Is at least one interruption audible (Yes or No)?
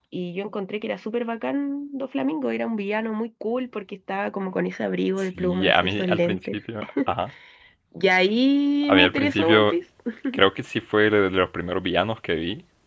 Yes